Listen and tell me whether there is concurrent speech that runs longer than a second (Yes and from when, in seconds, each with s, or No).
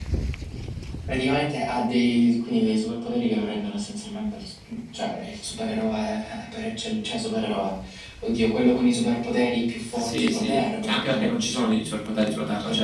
Yes, from 9.9 s